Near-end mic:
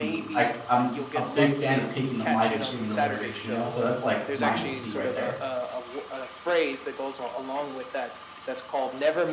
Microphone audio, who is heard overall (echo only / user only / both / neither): both